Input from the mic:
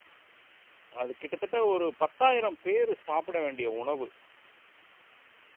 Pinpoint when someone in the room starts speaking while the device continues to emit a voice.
1.0 s

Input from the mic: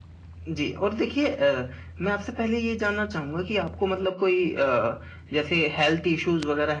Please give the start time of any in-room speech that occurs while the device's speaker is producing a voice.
none

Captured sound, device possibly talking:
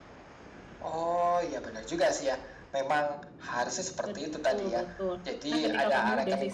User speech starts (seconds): 4.0 s

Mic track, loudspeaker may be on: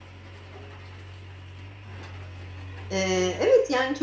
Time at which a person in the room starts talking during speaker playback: 2.9 s

